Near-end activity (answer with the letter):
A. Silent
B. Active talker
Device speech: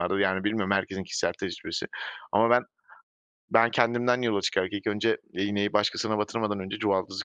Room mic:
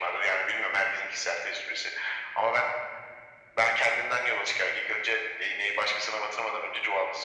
A